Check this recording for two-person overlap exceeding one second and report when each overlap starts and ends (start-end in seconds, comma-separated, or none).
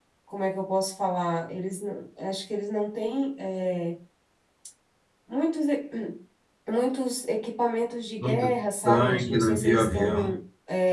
8.8-10.3